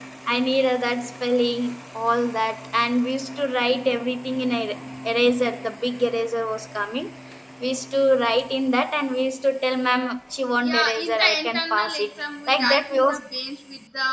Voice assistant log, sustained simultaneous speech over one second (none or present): present